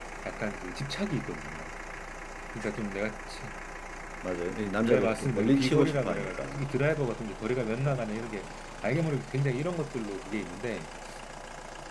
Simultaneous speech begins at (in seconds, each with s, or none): 4.8 s